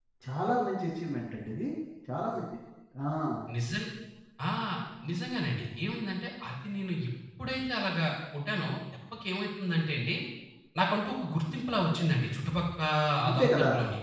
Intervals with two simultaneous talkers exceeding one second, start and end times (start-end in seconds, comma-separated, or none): none